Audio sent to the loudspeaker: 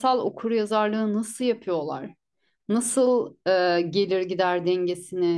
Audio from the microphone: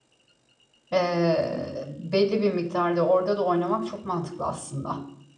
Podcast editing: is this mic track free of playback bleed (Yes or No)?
Yes